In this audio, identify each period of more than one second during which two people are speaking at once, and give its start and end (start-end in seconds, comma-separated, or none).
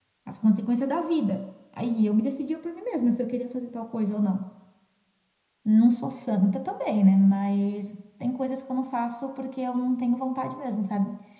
none